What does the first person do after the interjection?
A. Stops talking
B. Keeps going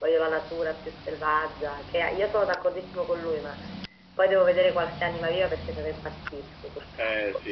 A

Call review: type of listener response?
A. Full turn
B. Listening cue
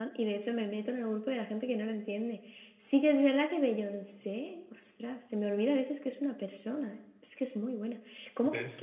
B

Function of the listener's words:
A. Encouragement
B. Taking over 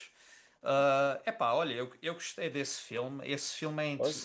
A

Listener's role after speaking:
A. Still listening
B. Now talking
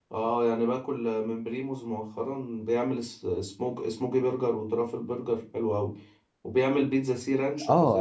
B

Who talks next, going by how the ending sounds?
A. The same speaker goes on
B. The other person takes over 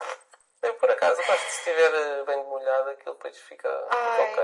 B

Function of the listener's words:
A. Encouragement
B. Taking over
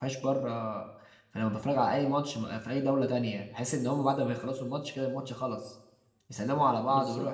A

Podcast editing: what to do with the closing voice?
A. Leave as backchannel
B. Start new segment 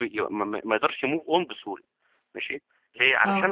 A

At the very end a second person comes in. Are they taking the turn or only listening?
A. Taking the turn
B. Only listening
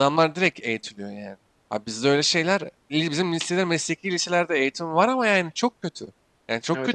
B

